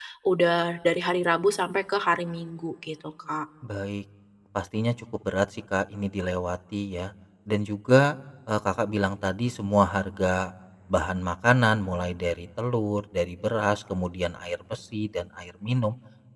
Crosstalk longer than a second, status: none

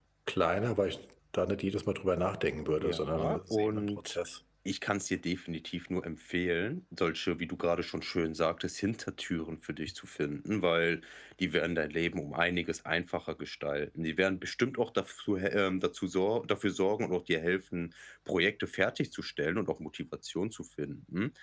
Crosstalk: present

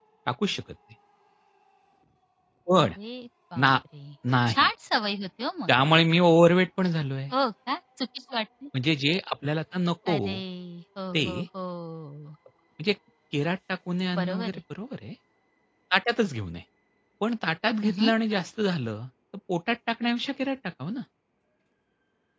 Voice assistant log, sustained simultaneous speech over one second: none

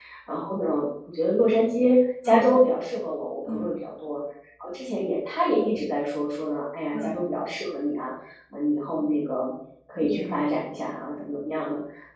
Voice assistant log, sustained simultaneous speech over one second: none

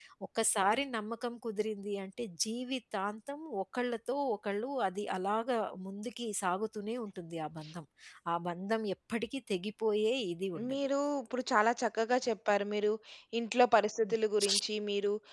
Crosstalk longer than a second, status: none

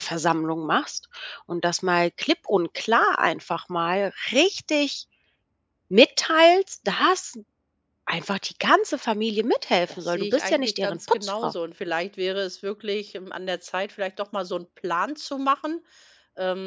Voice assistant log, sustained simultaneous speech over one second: present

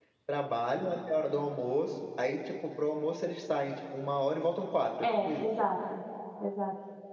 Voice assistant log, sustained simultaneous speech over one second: none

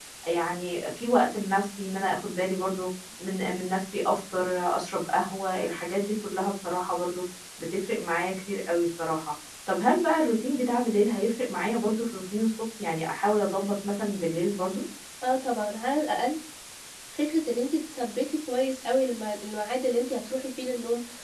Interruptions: none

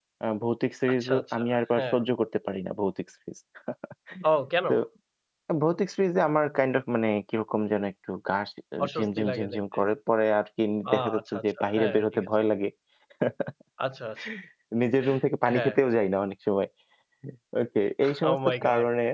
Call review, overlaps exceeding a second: present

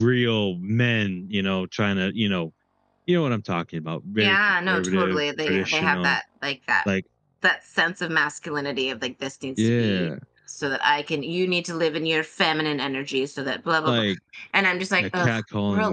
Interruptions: present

